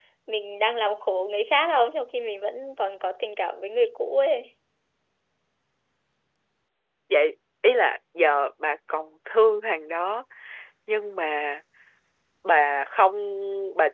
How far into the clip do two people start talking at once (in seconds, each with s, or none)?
none